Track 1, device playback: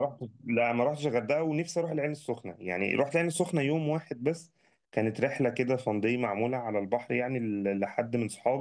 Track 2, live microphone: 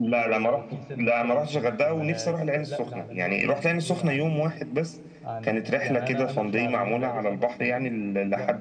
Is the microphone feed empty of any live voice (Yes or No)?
No